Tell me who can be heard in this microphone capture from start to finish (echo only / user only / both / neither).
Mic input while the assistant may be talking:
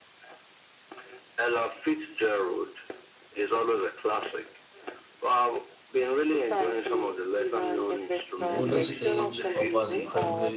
both